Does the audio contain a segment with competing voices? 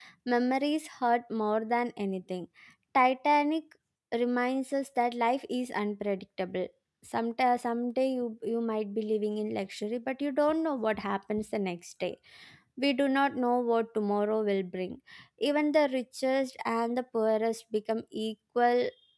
No

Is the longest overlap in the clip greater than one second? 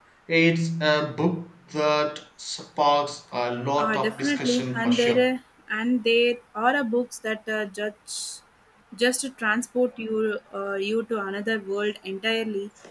Yes, from 3.8 s

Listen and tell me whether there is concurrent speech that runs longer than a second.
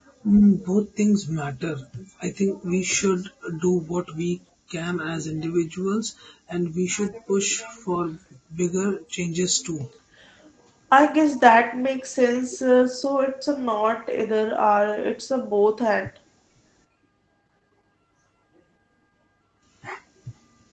No

